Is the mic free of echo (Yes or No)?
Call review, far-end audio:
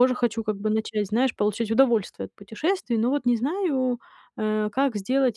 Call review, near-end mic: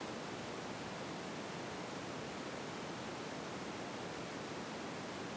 Yes